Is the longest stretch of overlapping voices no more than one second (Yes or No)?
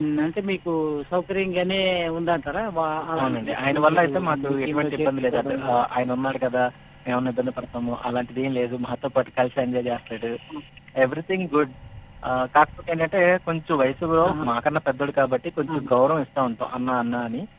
No